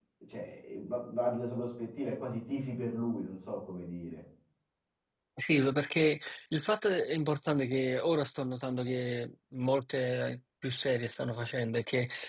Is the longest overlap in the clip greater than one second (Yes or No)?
No